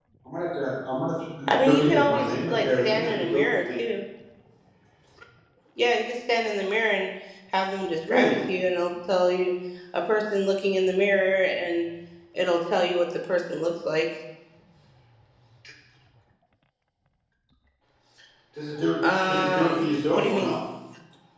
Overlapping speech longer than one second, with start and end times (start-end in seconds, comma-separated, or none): 1.6-3.7, 19.3-20.6